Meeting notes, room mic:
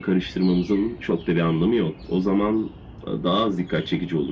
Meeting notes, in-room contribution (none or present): none